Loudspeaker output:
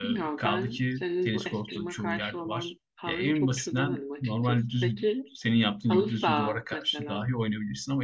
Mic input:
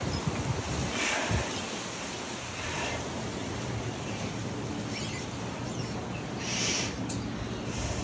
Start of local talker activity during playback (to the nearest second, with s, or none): none